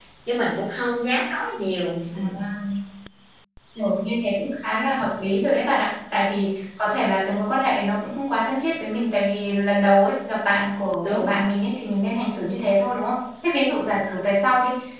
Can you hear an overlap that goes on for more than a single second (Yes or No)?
No